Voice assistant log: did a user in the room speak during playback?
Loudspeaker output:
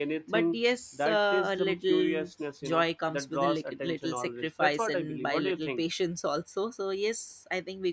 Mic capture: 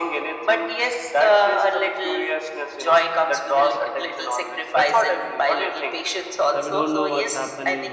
Yes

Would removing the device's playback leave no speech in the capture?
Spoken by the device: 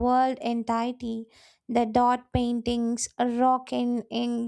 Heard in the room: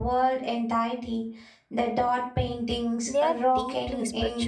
No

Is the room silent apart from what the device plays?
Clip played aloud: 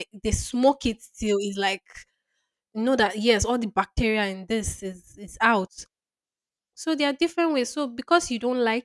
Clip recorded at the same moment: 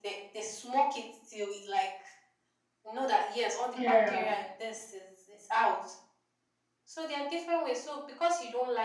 No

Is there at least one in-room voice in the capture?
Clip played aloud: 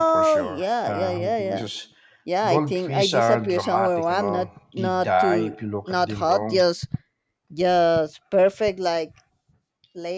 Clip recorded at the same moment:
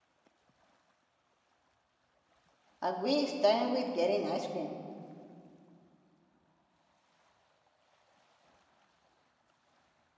Yes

